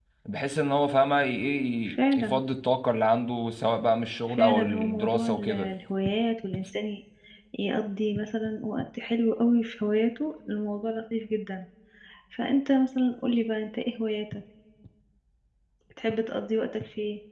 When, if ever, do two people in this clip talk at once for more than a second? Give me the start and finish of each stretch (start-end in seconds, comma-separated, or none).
4.4-5.7